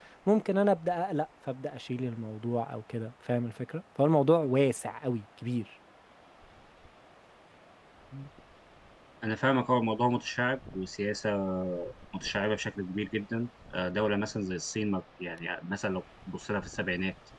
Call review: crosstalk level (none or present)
none